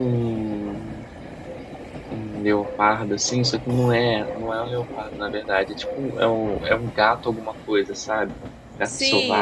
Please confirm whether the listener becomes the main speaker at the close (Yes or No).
Yes